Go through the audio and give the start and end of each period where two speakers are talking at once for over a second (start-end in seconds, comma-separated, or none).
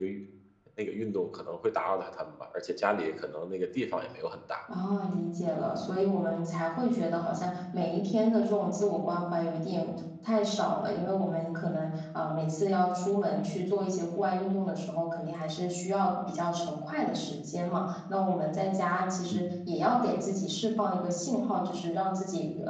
none